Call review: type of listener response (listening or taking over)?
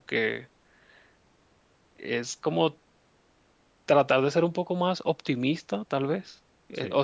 listening